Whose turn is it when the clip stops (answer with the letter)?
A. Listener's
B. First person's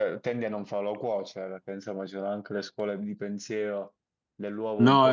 A